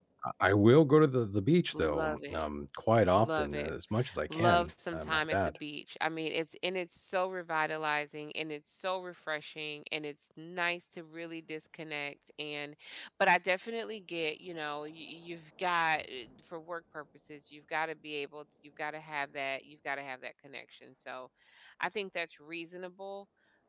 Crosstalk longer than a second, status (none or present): present